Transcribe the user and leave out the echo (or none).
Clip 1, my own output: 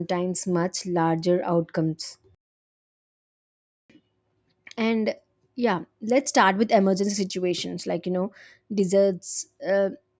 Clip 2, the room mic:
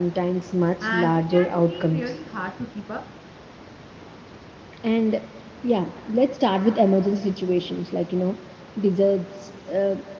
and it can be really hard to keep up.